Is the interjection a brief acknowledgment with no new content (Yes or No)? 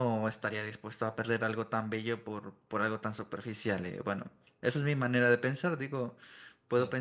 Yes